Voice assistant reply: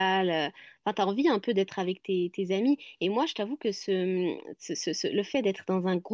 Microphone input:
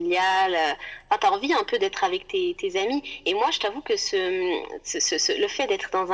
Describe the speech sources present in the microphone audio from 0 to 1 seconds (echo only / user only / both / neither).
echo only